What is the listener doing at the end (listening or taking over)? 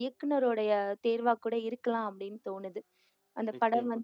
listening